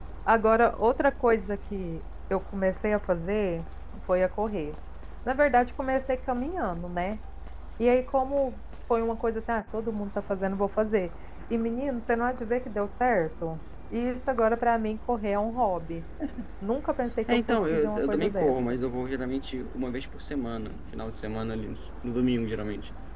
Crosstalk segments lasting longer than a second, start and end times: 17.3-18.5

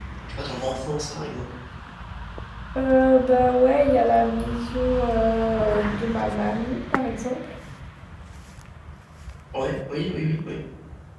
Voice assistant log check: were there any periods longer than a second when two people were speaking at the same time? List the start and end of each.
none

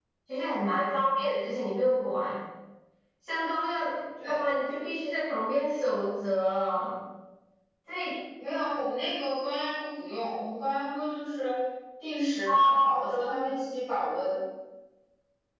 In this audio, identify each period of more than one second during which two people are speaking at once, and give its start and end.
none

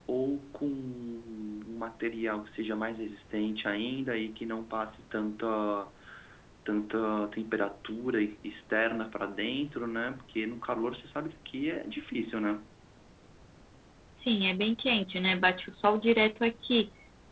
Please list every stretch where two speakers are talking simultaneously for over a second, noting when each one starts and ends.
none

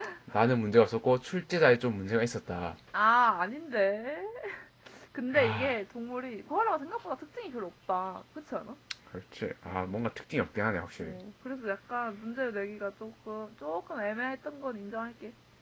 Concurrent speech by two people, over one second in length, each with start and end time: none

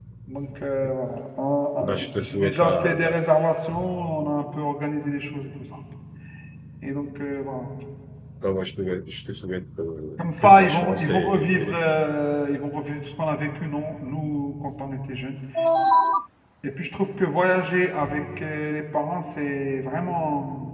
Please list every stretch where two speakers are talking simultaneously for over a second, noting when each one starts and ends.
1.8-3.2, 10.2-11.8

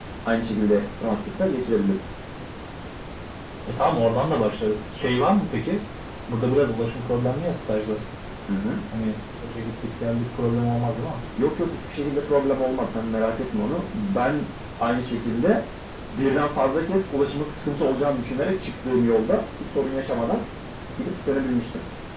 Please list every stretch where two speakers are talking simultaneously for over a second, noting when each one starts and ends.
none

